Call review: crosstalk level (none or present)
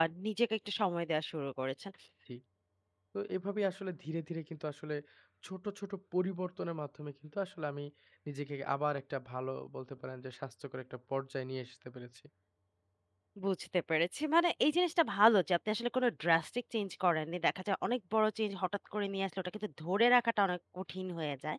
none